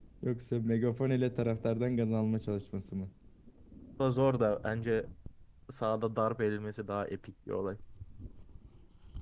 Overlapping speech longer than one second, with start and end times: none

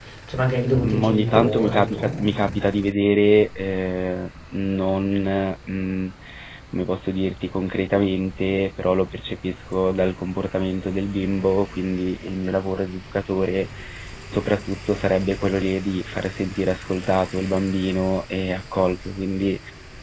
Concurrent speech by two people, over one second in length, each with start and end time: 0.9-2.6

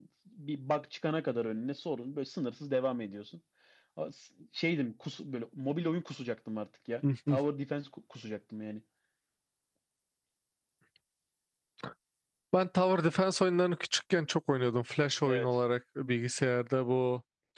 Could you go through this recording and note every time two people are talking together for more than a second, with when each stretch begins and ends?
none

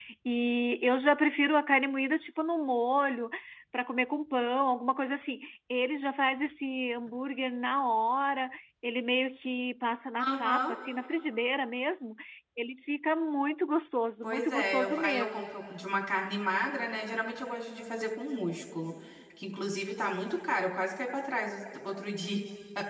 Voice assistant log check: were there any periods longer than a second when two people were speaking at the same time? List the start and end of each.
14.2-15.5

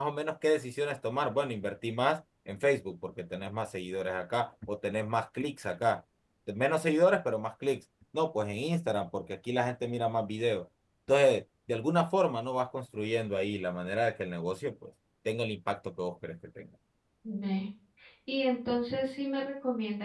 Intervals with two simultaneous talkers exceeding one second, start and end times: none

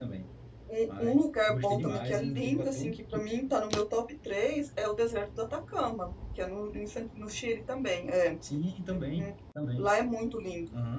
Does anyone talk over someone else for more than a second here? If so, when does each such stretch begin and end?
0.9-2.9

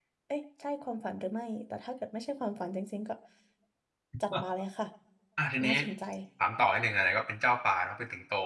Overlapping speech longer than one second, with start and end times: none

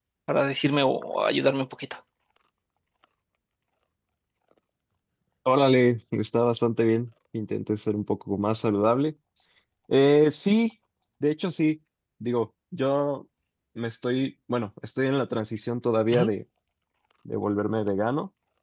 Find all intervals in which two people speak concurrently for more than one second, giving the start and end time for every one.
none

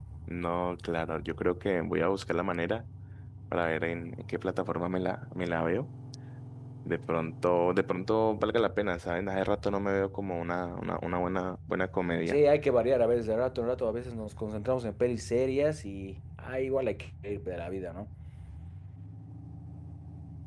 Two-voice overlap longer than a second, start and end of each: none

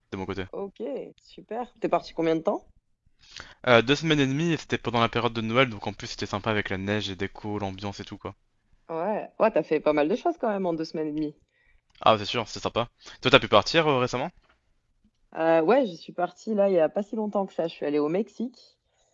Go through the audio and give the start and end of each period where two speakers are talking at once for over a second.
none

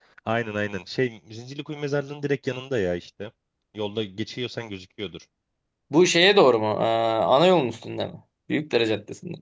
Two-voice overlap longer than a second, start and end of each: none

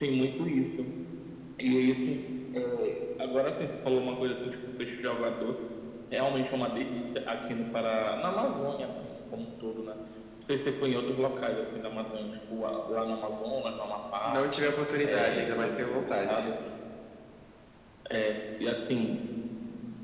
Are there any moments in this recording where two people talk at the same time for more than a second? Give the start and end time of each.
15.0-16.4

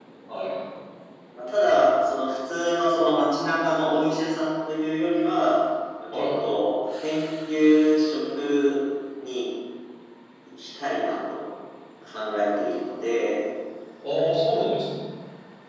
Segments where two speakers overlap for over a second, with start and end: none

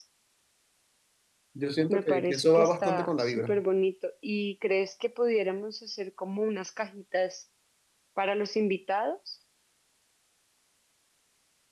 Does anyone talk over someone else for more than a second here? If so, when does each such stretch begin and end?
1.9-3.5

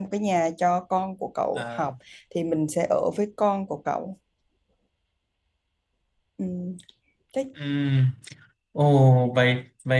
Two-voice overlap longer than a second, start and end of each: none

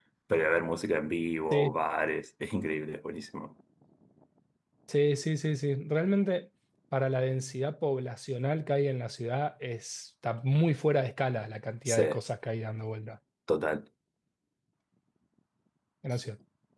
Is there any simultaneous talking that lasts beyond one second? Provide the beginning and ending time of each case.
none

